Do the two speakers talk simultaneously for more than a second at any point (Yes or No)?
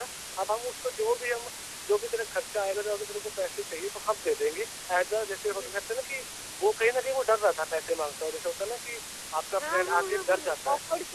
Yes